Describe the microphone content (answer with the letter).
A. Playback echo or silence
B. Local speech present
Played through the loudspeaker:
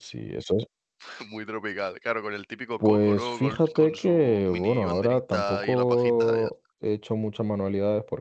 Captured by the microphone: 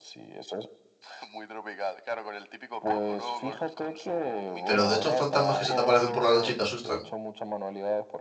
B